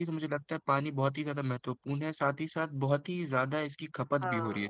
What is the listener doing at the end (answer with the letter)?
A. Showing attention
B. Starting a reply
B